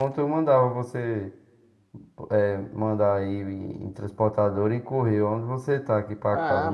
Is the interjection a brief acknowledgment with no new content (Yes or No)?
No